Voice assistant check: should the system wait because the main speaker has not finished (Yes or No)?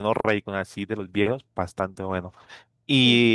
Yes